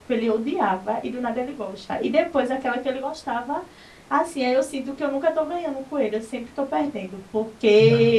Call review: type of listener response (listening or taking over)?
listening